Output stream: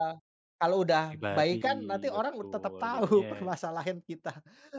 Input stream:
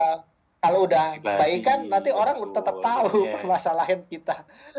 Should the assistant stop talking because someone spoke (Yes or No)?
No